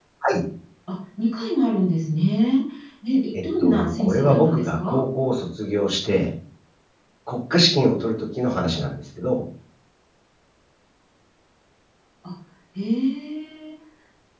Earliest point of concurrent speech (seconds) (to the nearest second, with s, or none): 3 s